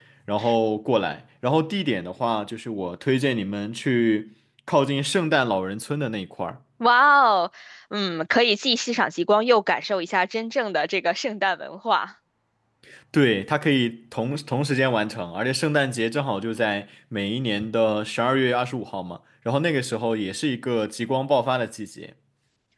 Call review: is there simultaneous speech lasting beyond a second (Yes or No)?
No